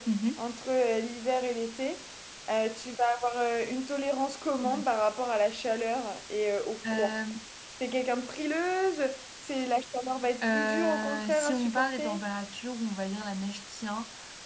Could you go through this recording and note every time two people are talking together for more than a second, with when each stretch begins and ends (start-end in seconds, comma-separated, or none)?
10.5-12.2